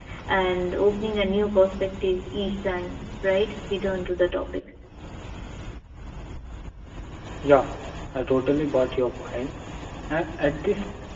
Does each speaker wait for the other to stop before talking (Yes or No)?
Yes